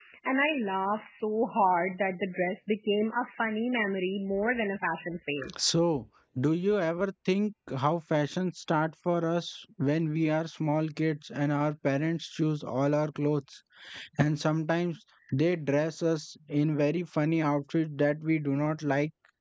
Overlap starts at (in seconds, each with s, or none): none